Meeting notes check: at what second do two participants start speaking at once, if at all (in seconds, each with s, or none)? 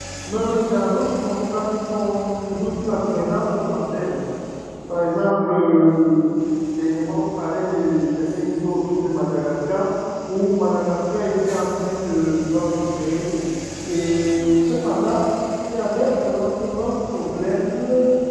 none